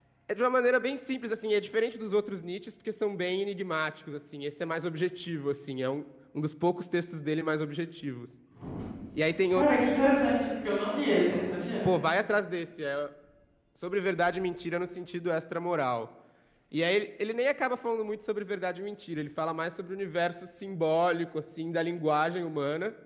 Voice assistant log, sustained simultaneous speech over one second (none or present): none